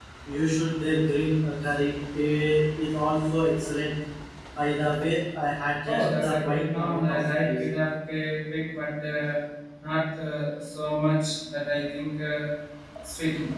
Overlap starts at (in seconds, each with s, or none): 5.9 s